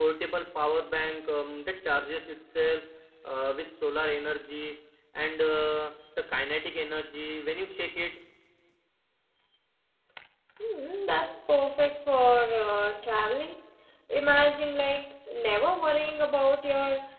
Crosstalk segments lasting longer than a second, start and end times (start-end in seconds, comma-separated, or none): none